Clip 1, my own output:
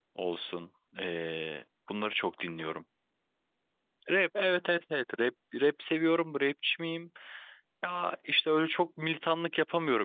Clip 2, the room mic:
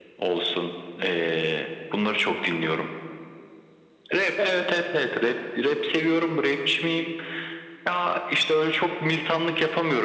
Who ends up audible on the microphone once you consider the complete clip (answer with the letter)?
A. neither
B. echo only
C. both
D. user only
B